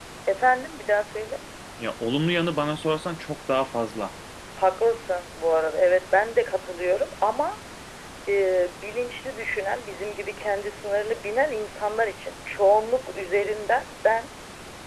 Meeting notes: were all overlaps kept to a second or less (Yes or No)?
Yes